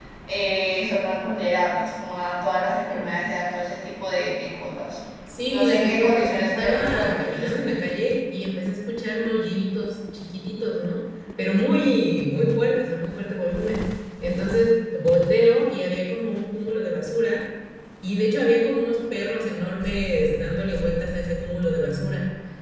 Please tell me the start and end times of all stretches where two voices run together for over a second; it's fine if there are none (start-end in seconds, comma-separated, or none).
5.5-7.7